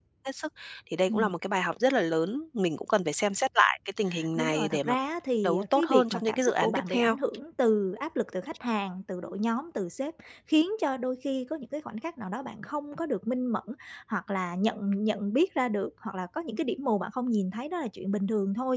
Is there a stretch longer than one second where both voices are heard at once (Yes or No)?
Yes